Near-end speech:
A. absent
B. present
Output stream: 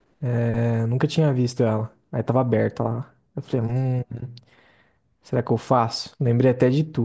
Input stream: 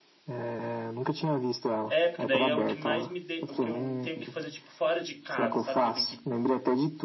B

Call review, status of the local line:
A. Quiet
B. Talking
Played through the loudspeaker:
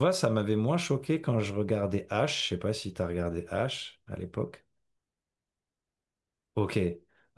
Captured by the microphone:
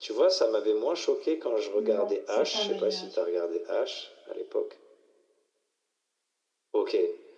B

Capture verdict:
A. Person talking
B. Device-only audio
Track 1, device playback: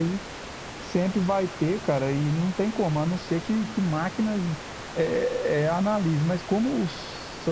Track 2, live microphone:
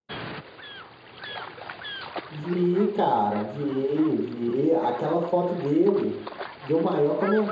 A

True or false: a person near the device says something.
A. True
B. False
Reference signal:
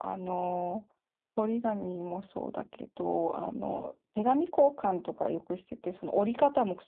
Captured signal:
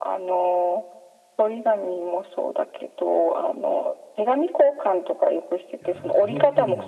A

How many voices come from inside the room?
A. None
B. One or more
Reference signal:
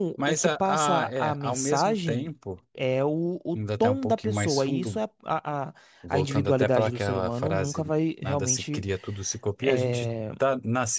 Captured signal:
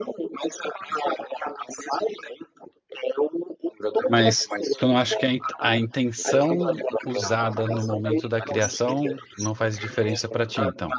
B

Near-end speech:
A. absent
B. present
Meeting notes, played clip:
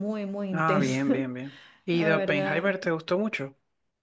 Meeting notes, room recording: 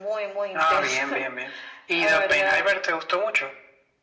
A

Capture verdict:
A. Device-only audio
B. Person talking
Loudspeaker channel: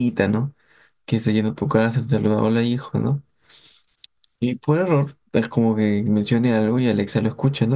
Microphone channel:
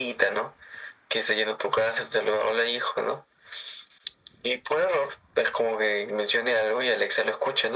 A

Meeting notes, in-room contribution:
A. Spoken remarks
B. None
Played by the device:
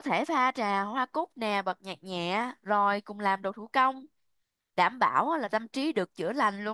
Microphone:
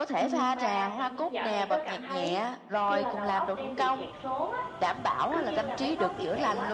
A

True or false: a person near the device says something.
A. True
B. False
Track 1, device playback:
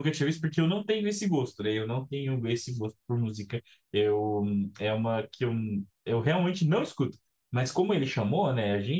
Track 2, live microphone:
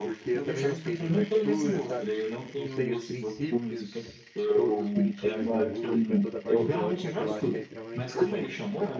A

